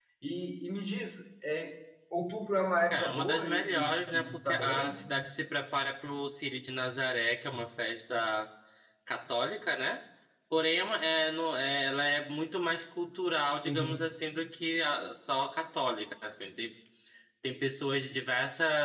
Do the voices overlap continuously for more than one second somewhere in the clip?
Yes, from 2.9 s

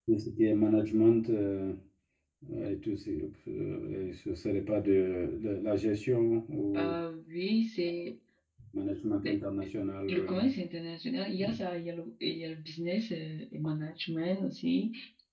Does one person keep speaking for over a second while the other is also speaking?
No

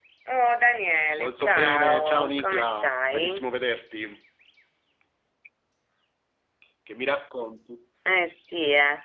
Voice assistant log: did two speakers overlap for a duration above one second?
Yes, from 1.2 s

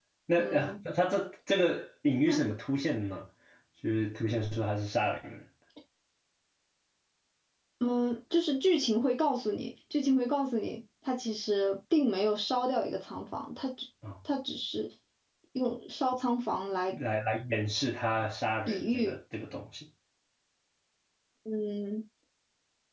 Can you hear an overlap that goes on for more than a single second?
No

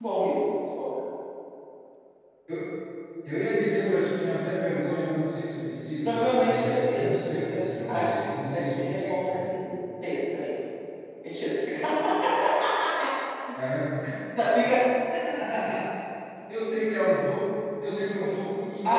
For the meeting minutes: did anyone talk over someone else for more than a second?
Yes, from 6.0 s

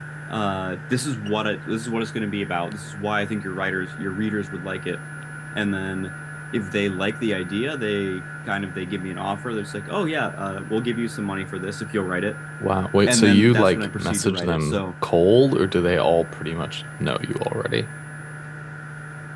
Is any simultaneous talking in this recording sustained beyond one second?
Yes, from 13.1 s

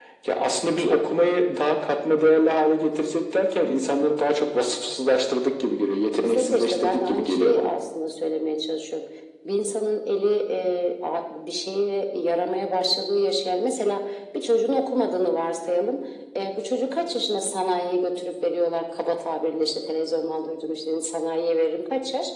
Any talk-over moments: Yes, from 6.1 s

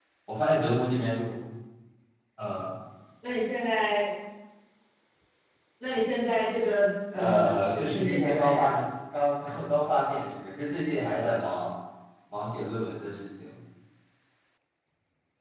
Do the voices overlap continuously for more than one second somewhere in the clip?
Yes, from 7.1 s

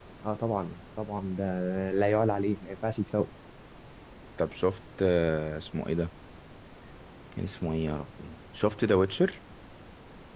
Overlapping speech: No

